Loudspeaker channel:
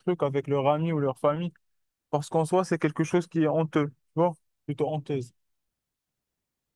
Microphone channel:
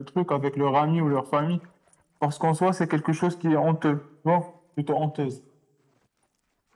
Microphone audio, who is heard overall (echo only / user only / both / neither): echo only